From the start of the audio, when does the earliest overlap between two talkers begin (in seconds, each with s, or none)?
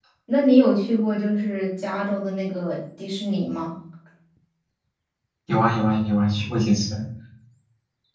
none